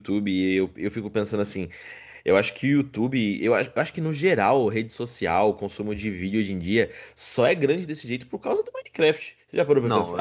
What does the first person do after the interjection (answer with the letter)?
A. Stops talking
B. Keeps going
A